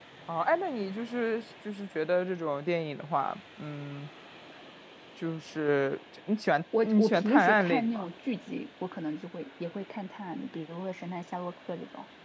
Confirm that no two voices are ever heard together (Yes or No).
No